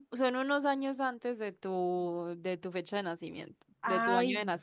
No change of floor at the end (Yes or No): No